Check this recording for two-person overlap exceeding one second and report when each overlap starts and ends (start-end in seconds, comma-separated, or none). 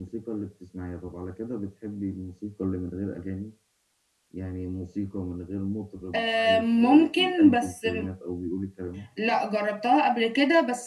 6.1-7.8